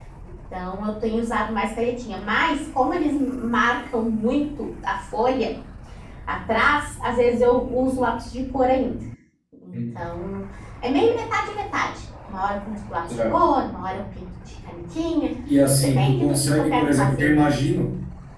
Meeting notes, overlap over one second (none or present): present